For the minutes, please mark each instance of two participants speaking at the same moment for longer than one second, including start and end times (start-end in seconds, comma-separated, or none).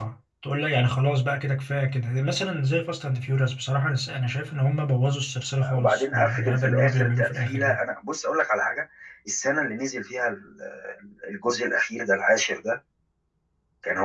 5.8-7.8